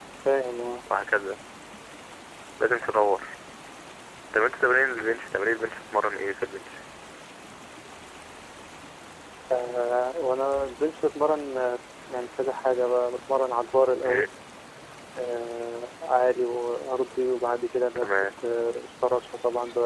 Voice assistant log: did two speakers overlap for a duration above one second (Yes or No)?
No